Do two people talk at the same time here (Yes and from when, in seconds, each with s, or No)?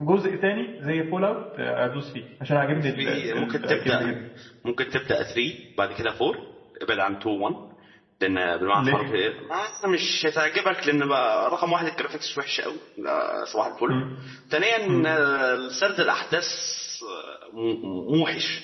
Yes, from 2.8 s